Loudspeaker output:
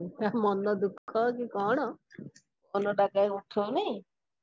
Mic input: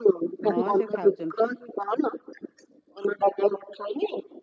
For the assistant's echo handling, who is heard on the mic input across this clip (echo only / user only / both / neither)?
both